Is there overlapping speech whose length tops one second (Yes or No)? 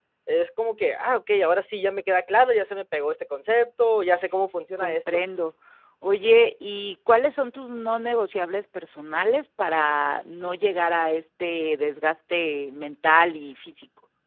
No